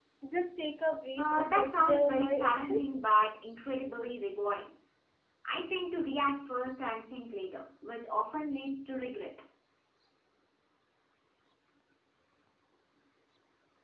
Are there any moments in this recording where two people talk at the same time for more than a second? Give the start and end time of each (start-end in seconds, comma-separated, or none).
1.2-3.0